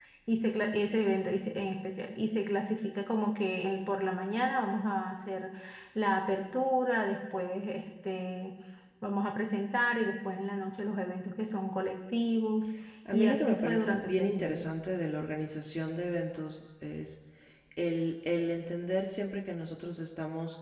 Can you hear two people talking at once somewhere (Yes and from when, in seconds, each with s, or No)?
Yes, from 13.1 s